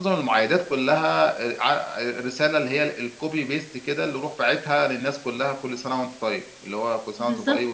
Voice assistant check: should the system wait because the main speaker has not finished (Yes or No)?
No